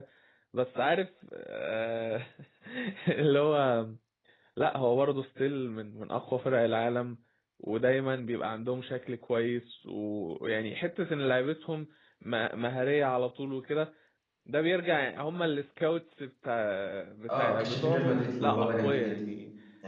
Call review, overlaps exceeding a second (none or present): present